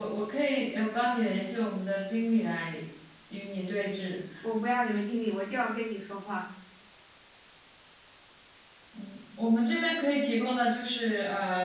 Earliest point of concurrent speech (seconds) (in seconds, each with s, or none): none